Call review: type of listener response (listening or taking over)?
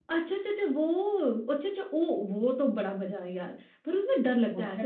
taking over